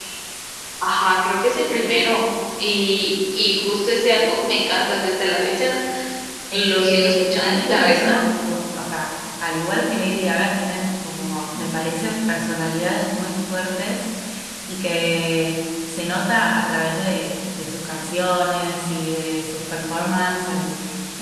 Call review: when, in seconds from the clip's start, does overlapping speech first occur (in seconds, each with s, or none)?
6.5 s